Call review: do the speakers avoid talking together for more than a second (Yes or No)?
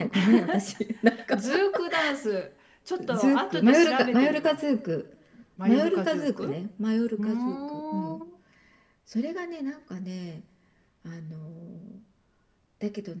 No